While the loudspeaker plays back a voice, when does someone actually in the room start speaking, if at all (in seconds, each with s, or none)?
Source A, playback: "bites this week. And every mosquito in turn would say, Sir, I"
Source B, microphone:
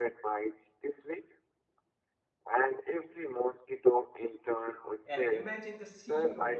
5.0 s